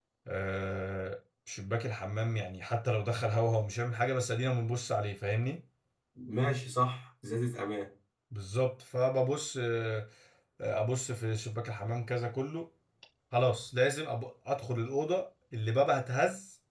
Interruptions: none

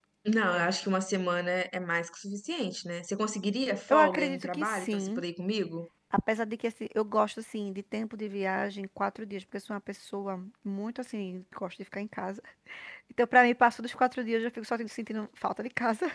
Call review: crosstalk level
present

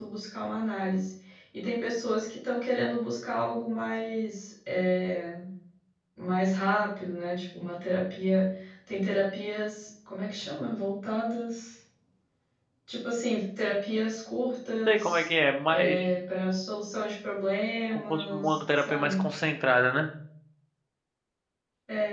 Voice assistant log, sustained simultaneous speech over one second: present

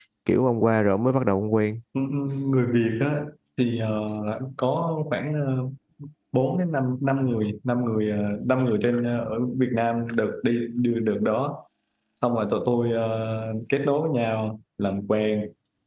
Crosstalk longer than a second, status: none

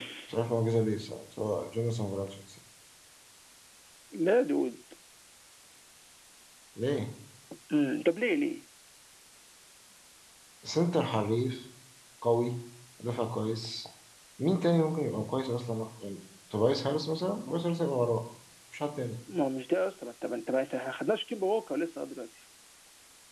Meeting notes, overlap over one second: none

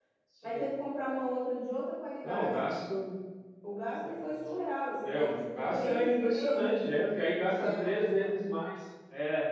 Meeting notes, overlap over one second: present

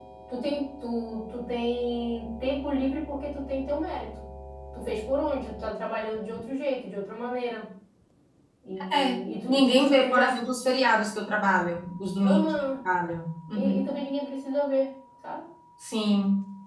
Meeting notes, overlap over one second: present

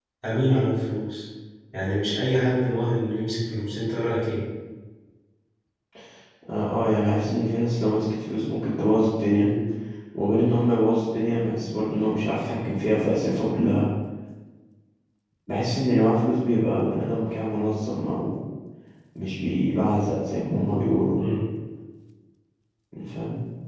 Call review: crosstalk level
none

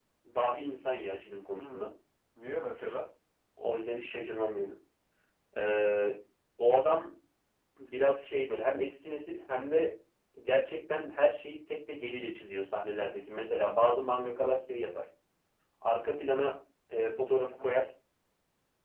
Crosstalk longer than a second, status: none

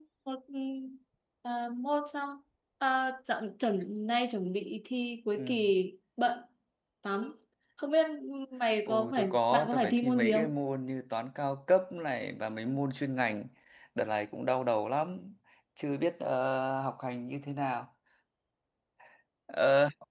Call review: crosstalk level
present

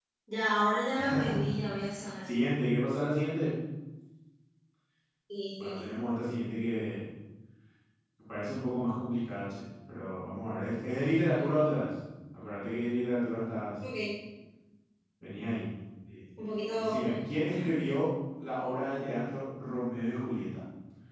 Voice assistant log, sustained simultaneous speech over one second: none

